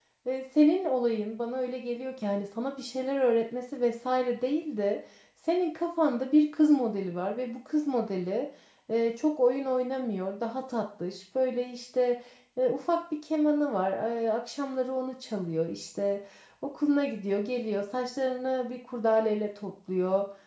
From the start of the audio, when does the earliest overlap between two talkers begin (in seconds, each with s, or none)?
none